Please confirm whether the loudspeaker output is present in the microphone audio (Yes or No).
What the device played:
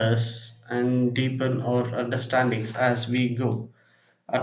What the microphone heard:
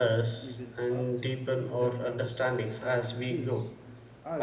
Yes